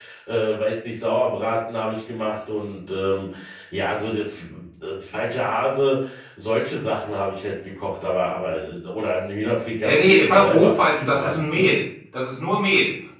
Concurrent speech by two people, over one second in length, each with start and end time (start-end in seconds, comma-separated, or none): 9.8-11.7